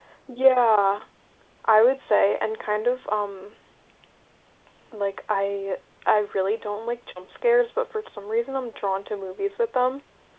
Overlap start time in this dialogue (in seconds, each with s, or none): none